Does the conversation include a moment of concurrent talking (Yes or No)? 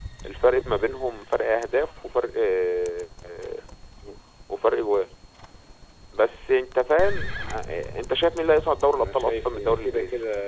Yes